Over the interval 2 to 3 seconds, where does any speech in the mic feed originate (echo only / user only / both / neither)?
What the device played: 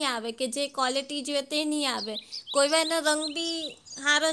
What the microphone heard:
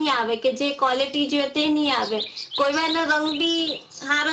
echo only